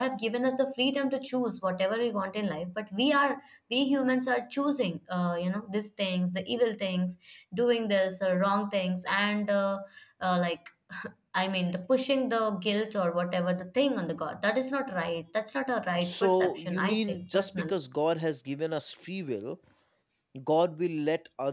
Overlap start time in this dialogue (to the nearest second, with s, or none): 16 s